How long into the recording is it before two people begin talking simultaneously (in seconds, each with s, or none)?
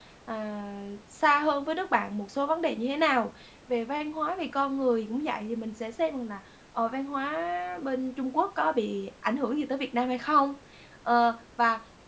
none